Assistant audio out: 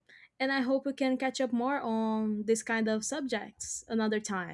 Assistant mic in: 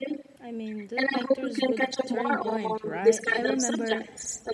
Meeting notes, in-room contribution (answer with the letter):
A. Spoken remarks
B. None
A